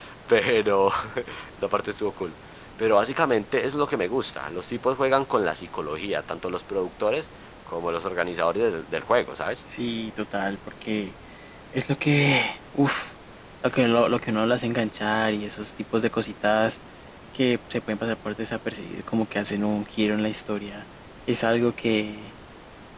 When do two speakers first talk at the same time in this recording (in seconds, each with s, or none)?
none